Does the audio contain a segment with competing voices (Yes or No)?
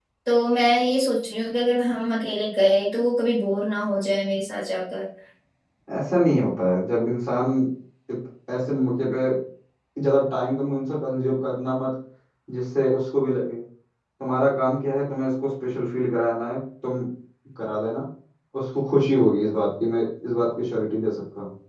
No